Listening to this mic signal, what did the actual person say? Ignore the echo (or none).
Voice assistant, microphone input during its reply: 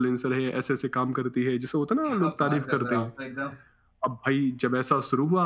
क्या बात कर रहे हो आप तो एकदम